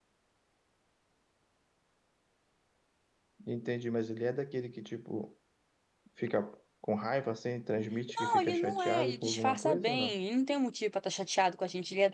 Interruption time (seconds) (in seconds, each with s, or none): 8.1 s